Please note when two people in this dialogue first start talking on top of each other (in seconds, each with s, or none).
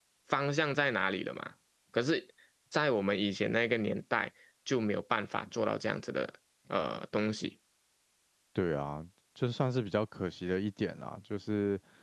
none